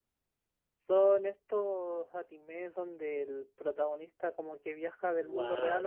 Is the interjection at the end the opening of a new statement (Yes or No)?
Yes